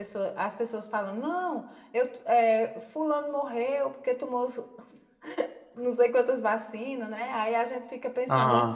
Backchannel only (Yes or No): Yes